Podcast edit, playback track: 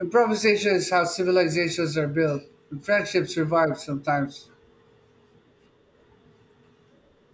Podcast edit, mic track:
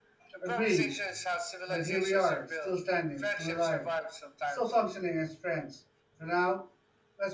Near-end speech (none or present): present